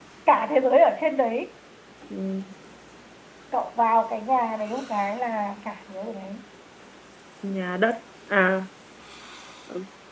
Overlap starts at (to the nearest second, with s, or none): none